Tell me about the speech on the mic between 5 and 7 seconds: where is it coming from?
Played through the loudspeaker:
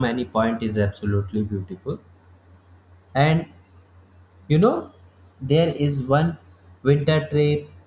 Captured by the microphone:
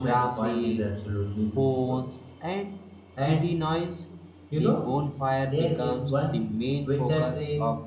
both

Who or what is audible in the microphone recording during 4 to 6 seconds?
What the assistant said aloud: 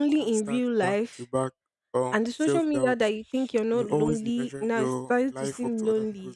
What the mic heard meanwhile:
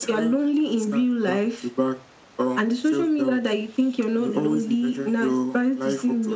echo only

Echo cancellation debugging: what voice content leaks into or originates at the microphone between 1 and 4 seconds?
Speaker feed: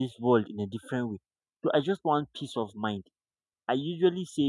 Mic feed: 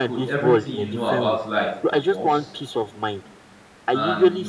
both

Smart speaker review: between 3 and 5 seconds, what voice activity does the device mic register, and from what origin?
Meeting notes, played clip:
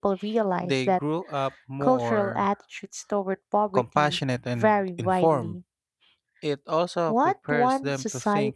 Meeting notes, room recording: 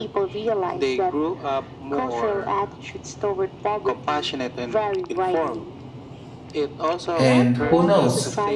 echo only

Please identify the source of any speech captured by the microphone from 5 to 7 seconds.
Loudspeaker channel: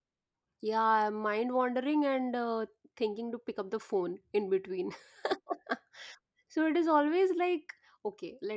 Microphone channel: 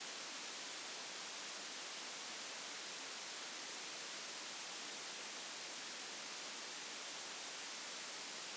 neither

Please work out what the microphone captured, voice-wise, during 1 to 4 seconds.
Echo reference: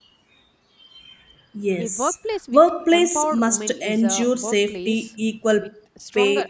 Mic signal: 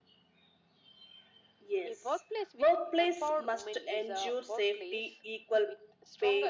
echo only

